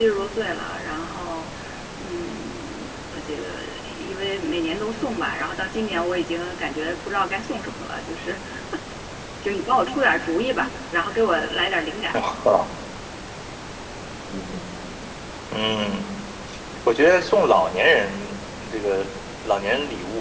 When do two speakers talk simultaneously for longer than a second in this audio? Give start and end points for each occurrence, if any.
none

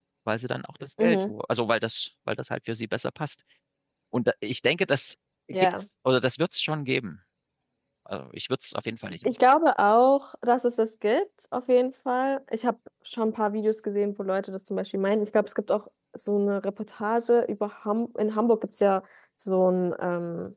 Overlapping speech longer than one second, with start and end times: none

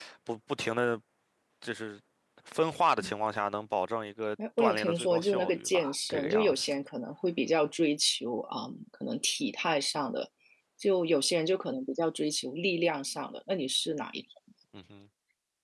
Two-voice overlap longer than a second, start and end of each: 4.6-6.8

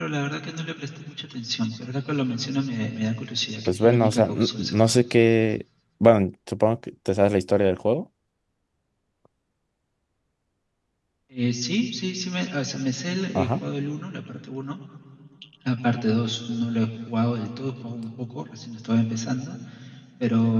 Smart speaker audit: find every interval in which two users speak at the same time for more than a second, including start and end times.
3.7-5.0

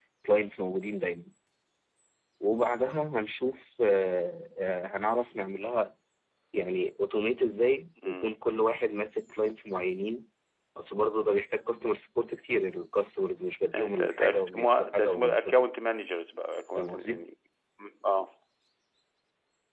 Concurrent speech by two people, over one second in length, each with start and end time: 13.7-15.6

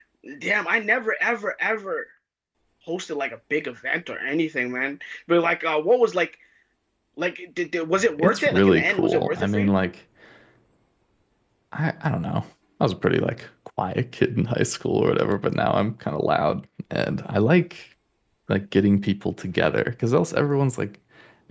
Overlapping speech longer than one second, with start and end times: 8.2-9.7

